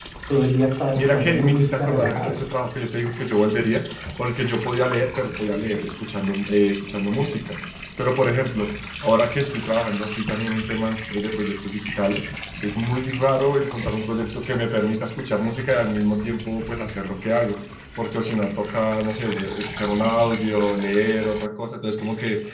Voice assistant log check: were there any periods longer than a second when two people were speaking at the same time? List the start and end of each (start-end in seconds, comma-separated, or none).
0.9-2.4